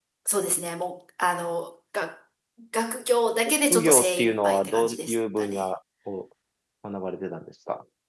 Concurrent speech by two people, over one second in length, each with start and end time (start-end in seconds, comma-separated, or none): 3.7-5.6